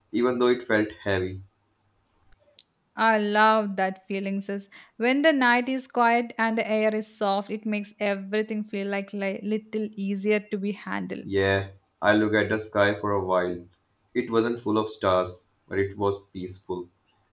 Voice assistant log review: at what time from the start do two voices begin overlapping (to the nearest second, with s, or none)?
none